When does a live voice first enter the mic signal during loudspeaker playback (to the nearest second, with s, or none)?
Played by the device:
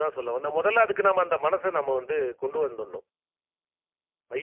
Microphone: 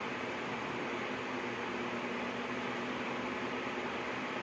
none